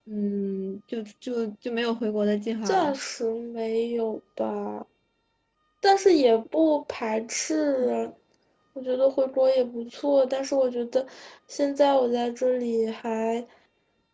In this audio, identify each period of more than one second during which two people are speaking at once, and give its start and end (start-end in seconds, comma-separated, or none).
none